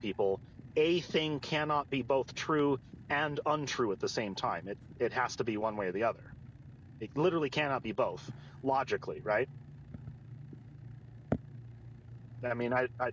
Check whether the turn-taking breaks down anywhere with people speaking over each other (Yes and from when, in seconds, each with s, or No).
No